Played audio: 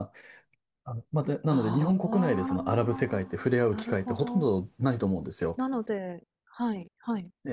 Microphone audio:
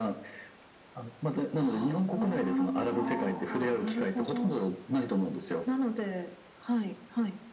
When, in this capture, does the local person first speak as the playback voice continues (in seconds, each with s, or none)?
2.8 s